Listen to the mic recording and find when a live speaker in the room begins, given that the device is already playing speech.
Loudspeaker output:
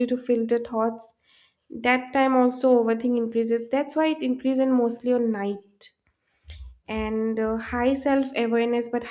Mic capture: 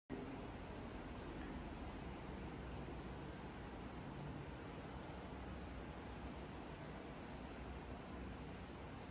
none

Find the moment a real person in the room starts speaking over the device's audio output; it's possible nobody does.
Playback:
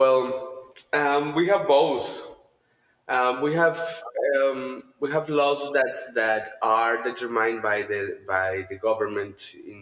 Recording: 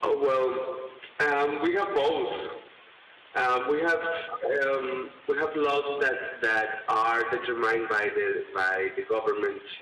none

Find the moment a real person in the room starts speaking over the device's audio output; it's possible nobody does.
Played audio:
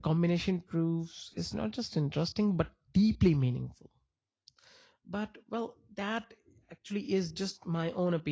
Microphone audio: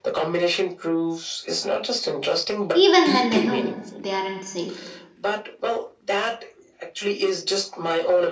2.7 s

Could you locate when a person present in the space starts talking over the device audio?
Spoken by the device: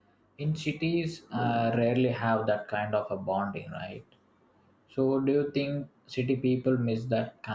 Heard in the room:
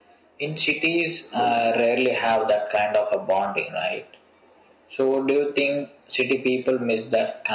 none

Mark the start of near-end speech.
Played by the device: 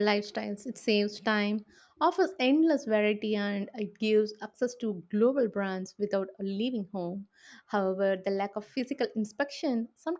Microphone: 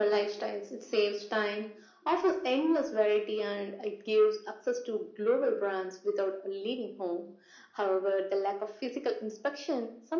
none

